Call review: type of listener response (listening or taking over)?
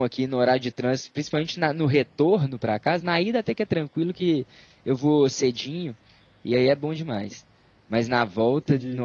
listening